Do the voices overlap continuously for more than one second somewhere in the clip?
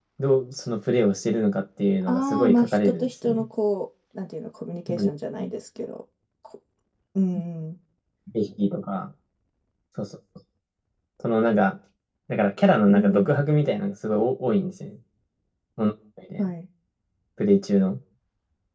Yes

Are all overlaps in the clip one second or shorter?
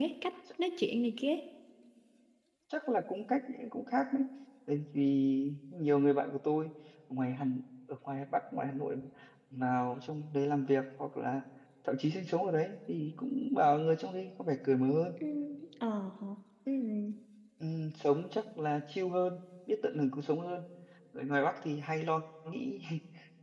Yes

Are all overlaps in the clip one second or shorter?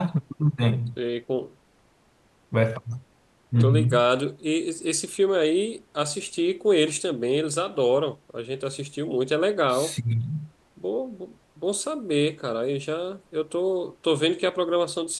Yes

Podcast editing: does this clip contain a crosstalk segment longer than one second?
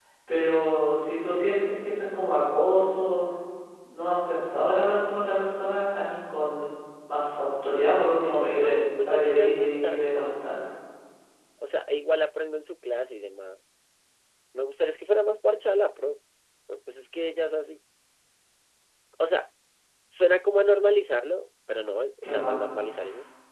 Yes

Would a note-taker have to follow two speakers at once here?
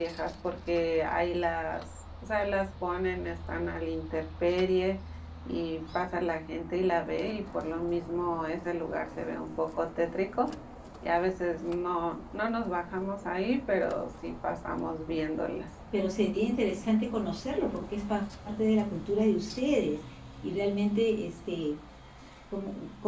No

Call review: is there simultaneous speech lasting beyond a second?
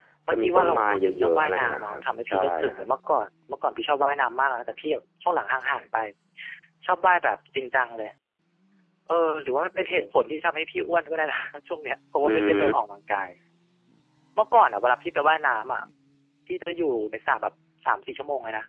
Yes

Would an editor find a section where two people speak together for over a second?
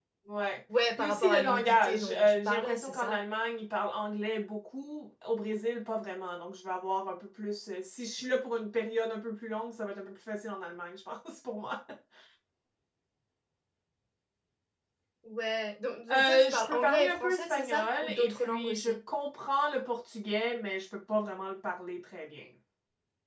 Yes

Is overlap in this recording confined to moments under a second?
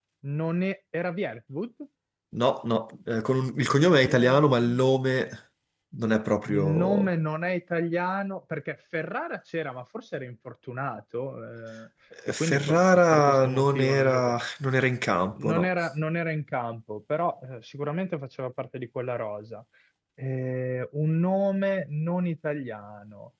No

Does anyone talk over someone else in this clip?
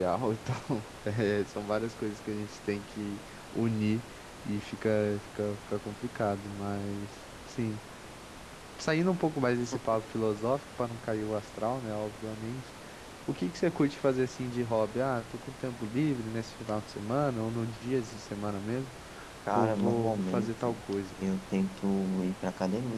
Yes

